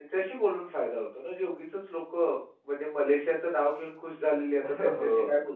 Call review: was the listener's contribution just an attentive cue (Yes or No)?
No